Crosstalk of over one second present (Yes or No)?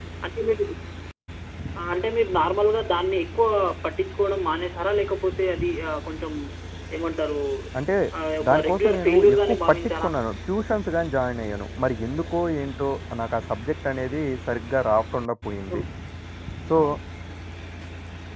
Yes